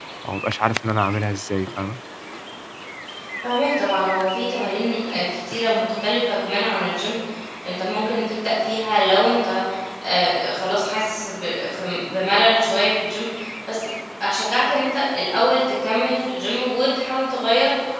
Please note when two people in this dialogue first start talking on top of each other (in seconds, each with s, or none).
none